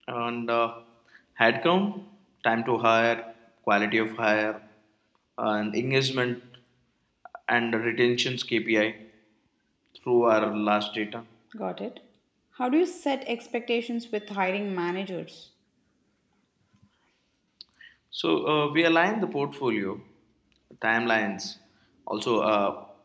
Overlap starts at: none

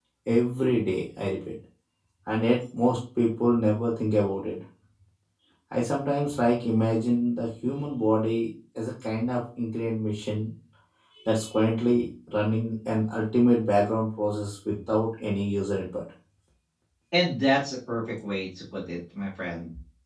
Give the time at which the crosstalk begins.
none

